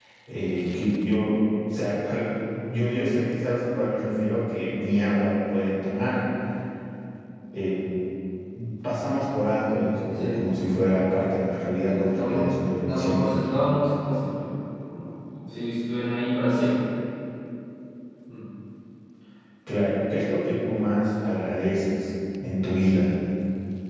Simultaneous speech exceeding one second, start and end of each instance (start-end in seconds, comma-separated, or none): 11.9-13.2